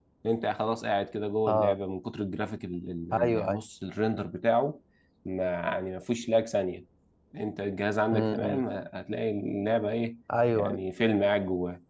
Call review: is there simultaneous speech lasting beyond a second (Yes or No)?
No